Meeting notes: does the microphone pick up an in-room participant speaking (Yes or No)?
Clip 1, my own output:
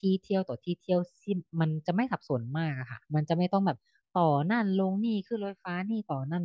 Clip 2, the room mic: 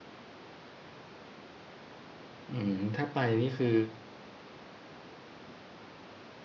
Yes